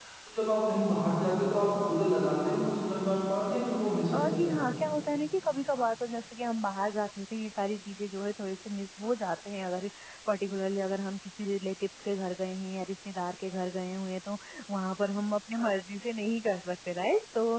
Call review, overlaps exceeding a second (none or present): none